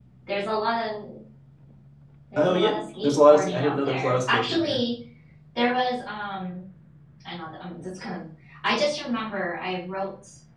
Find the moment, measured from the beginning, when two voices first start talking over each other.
2.4 s

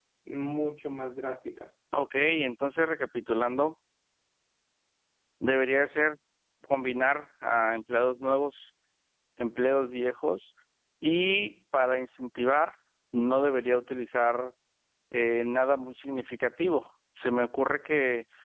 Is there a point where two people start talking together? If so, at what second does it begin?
none

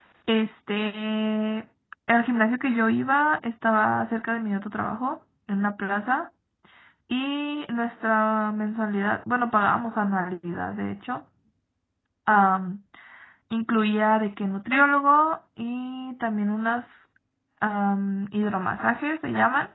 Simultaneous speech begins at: none

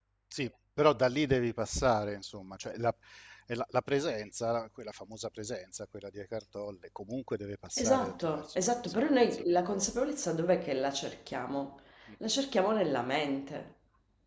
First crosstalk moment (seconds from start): 7.8 s

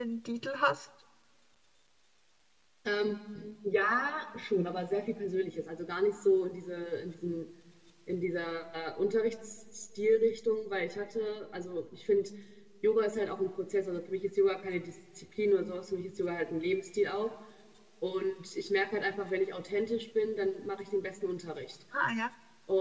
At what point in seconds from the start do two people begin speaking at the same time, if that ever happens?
none

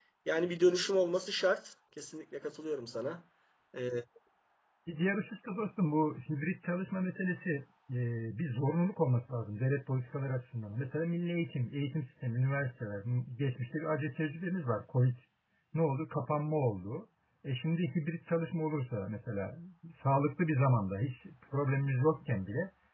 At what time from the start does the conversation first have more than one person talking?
none

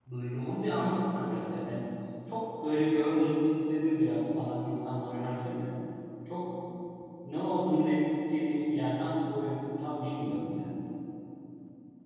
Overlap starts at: none

